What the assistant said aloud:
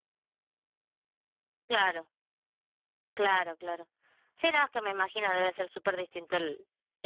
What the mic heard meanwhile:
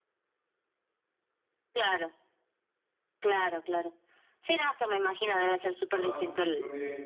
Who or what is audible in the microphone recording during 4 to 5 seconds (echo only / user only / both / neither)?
echo only